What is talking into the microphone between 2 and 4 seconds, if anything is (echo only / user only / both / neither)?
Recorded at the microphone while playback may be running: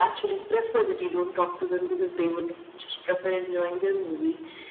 echo only